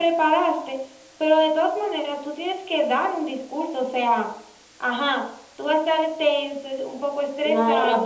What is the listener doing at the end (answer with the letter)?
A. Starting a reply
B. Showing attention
A